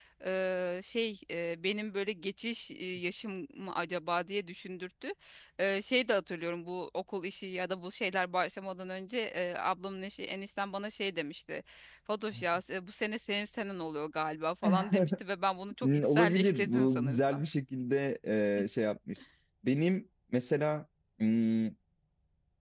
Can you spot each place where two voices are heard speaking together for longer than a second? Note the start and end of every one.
15.8-17.4

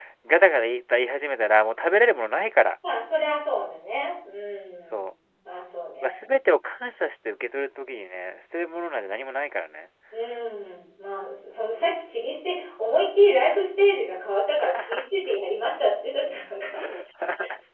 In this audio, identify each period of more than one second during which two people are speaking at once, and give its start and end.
none

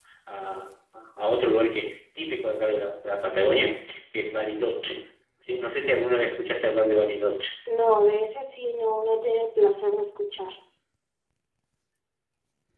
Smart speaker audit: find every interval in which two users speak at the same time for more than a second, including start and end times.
none

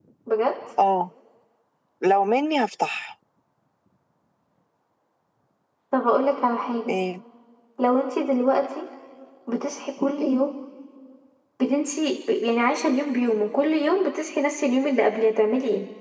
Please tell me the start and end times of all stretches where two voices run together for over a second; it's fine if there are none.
none

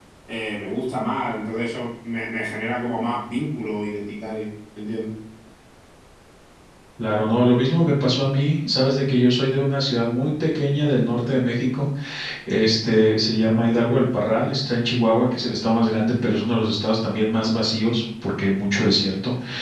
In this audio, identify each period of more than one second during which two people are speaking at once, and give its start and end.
none

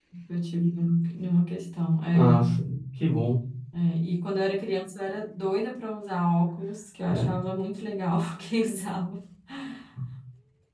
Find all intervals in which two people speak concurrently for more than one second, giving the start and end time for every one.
none

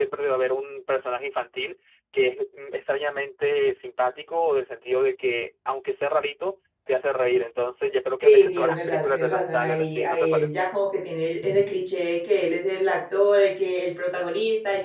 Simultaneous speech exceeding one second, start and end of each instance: 8.2-10.6

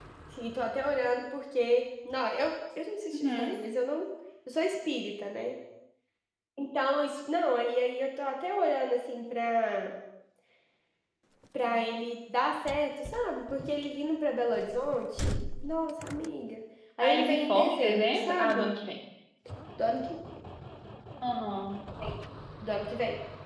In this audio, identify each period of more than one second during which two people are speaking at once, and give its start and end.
17.0-18.7

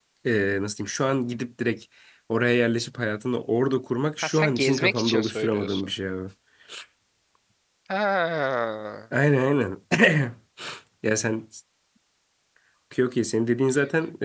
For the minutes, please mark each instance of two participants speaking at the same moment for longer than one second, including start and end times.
4.2-5.9

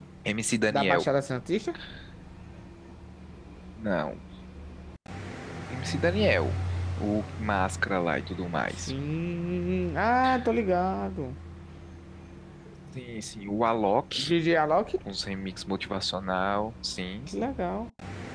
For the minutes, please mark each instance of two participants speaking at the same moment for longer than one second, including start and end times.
none

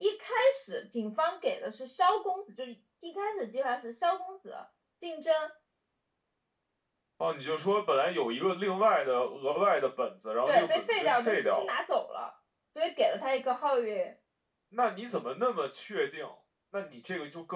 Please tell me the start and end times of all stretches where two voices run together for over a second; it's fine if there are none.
10.5-11.8

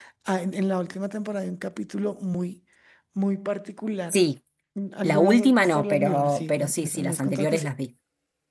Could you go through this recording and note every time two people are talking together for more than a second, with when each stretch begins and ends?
5.0-7.7

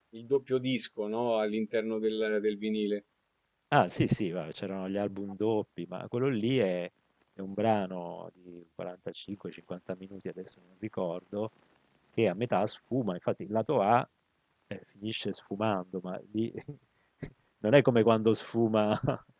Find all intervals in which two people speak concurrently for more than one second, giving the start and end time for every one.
none

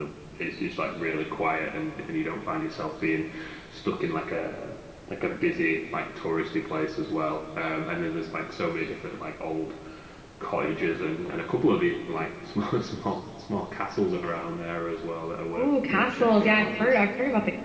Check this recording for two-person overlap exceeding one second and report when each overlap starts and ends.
15.5-17.0

